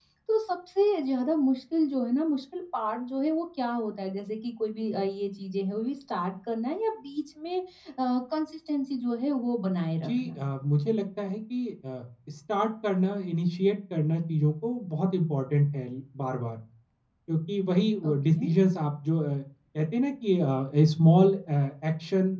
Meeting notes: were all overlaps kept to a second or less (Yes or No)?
Yes